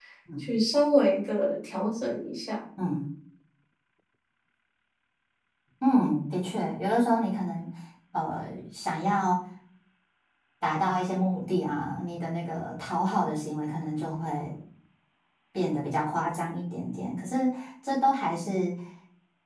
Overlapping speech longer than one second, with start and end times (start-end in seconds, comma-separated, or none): none